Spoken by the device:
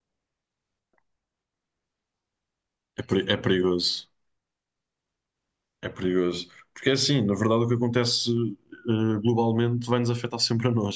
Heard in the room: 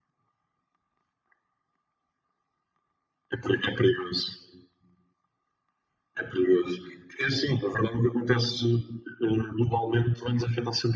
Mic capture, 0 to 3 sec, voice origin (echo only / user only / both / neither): neither